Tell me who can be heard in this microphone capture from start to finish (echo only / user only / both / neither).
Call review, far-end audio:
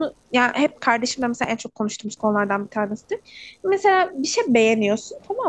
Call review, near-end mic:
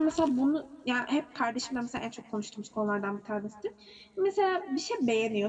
echo only